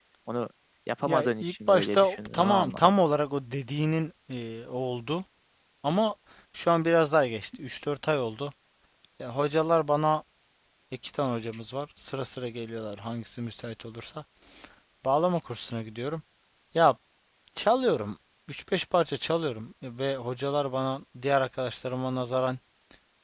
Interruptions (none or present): present